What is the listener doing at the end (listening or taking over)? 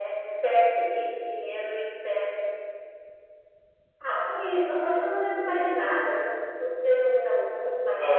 taking over